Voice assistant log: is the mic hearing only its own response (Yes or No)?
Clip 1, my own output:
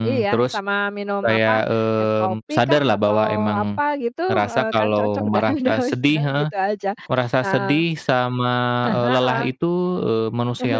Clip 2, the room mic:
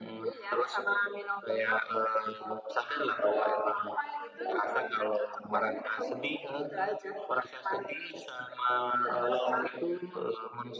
Yes